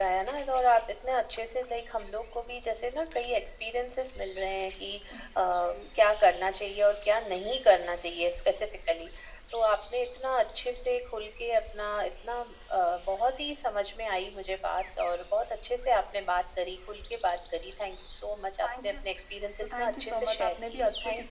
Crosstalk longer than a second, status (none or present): present